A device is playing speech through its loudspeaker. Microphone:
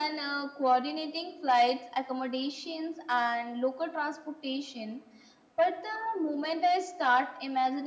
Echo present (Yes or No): Yes